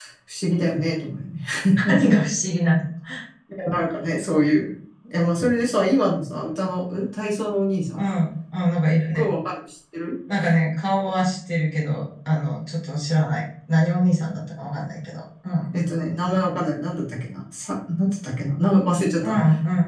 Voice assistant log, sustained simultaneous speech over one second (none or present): none